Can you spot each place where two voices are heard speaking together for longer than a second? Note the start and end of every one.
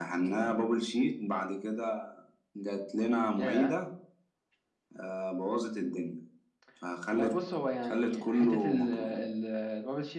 7.8-9.2

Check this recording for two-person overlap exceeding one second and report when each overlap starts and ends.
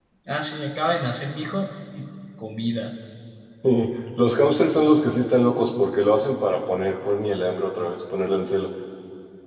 none

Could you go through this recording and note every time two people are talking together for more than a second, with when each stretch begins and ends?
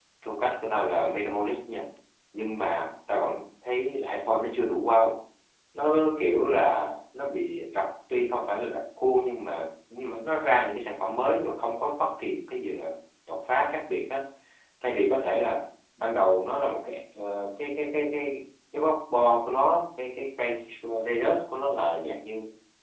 none

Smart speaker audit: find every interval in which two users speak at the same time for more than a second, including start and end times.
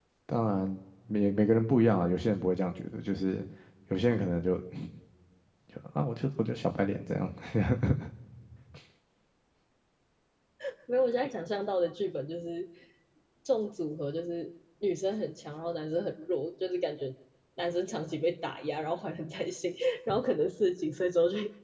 none

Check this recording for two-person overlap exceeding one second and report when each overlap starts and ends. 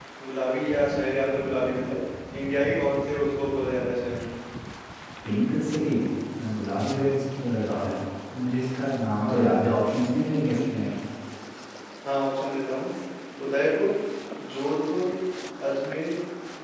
none

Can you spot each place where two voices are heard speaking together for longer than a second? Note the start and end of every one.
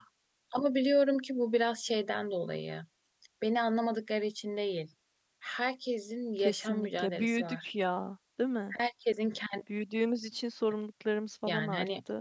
6.4-7.7

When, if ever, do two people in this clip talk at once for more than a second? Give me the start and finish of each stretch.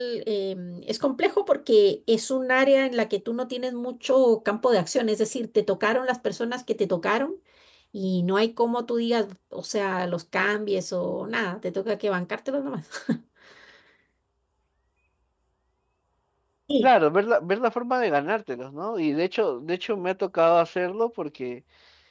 none

